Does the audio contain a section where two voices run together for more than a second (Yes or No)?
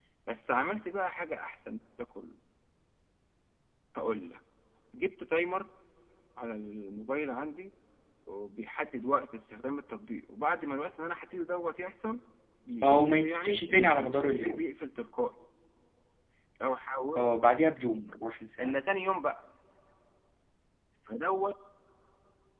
Yes